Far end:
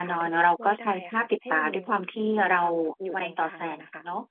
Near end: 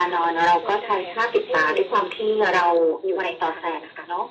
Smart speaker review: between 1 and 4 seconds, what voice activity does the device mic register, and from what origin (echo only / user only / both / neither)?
echo only